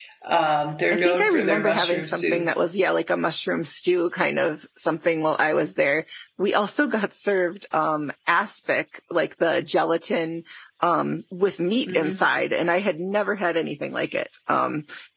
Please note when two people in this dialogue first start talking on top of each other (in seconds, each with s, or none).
0.9 s